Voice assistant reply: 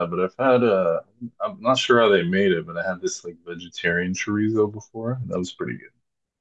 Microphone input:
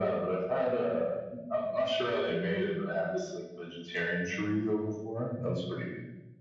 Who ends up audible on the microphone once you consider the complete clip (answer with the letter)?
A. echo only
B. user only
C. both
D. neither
A